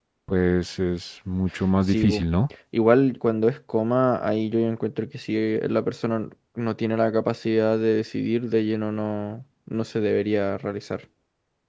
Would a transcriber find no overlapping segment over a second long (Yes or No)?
Yes